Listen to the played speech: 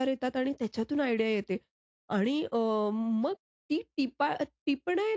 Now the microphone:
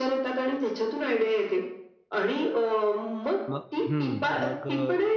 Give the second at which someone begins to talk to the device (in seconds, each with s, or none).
3.5 s